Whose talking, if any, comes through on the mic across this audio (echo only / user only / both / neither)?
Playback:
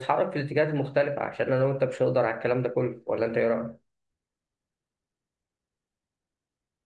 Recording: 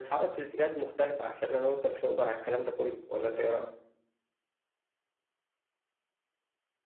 echo only